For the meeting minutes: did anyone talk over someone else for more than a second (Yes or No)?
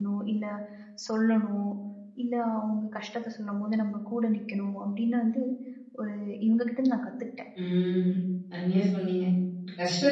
No